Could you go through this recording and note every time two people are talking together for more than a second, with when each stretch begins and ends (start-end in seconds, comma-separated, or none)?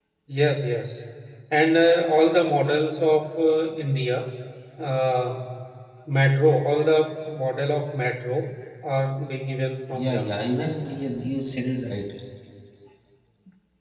none